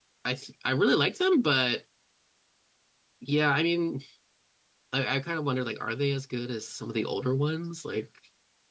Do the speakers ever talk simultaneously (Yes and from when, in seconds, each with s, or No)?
No